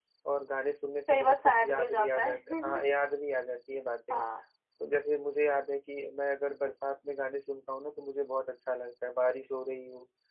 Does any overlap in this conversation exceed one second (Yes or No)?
Yes